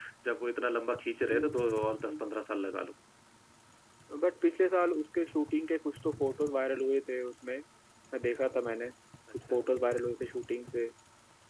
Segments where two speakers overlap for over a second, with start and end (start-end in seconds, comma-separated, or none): none